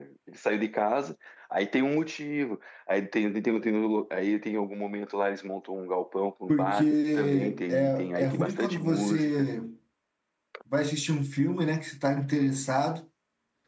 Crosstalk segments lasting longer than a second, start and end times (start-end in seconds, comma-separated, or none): 6.5-9.5